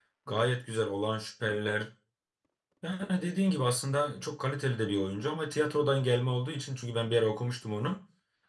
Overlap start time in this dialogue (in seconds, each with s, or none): none